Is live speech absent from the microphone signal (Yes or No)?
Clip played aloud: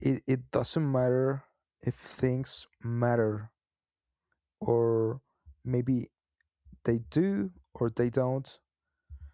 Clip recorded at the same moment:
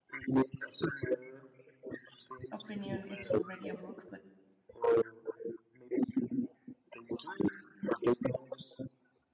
No